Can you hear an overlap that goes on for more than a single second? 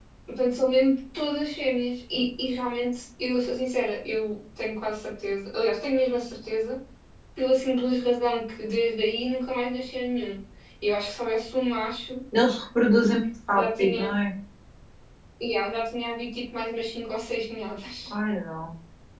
No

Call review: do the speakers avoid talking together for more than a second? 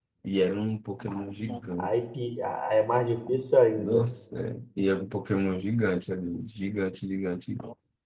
Yes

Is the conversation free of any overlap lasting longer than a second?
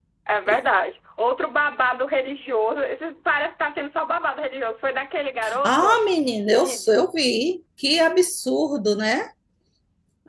Yes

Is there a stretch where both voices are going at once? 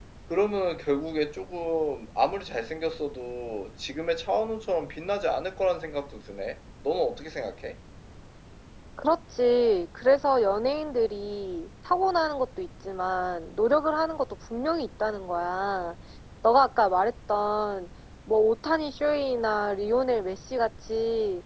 No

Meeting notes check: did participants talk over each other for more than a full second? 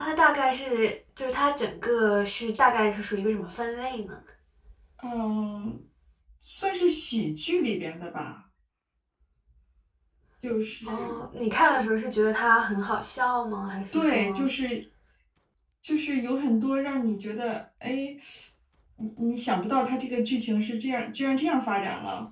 No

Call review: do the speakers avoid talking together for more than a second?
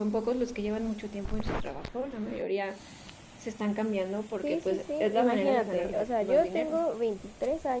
No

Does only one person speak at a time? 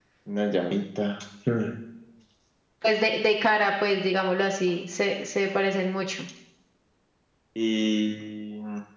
Yes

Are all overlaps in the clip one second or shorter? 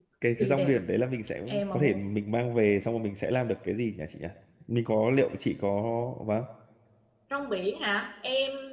Yes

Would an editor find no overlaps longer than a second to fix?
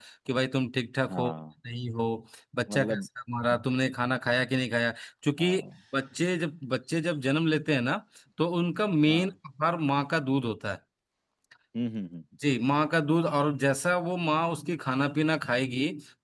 Yes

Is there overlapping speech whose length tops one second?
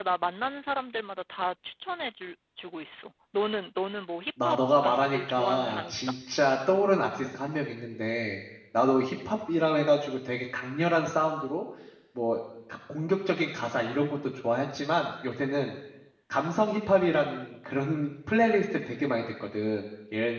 Yes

